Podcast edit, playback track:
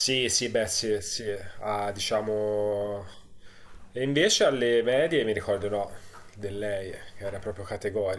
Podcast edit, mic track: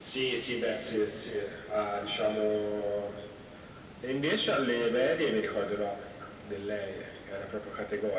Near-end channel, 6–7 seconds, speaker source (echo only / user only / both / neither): echo only